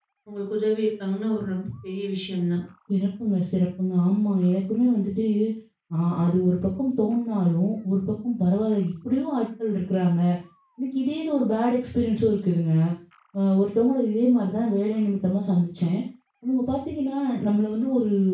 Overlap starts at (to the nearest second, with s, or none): none